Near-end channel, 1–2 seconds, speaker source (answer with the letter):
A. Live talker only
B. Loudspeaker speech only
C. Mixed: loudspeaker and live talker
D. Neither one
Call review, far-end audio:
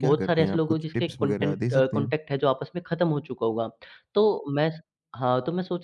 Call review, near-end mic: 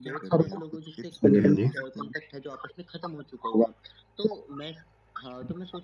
C